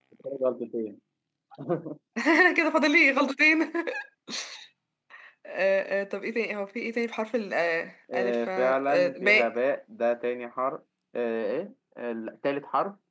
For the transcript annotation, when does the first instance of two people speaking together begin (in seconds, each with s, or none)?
8.1 s